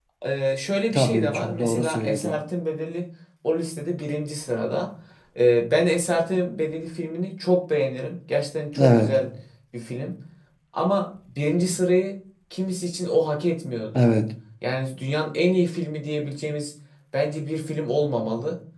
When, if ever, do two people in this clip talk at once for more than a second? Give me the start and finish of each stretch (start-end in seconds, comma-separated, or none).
0.9-2.4